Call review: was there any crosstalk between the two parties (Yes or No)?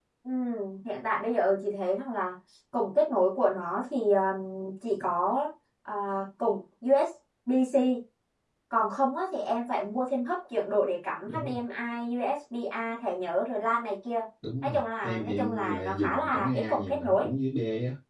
Yes